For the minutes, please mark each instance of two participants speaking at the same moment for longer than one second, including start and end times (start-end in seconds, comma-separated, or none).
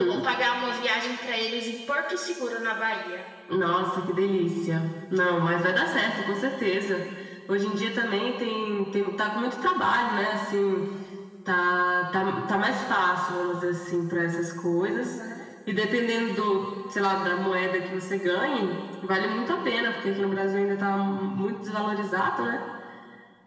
none